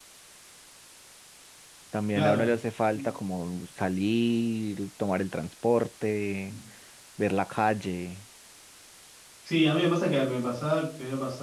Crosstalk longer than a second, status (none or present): none